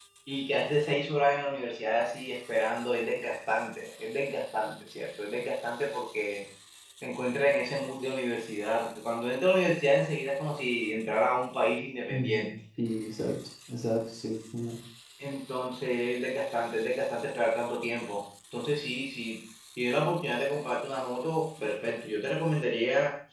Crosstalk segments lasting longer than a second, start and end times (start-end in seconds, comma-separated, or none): none